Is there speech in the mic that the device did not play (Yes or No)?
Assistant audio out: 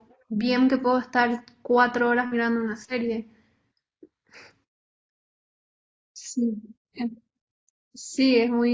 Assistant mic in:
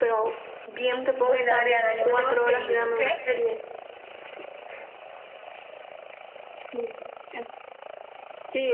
Yes